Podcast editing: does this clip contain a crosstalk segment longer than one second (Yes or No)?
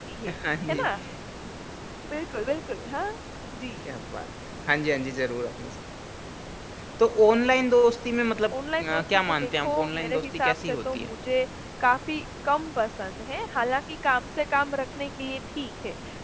Yes